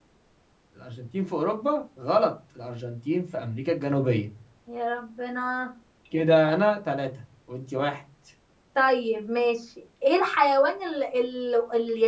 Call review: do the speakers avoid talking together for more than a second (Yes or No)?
Yes